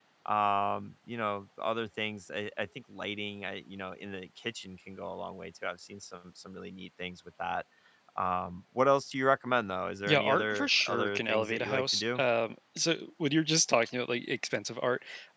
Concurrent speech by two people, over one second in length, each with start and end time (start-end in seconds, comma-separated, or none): 10.1-12.2